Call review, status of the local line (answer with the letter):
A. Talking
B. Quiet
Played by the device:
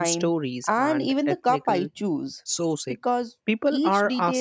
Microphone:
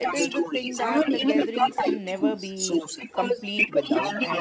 A